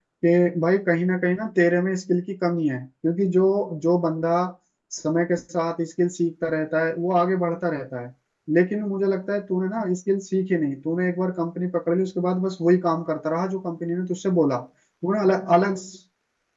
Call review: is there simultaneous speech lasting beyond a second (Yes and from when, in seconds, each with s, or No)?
No